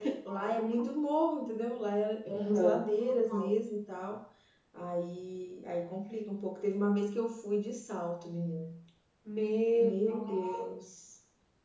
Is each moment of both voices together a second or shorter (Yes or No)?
Yes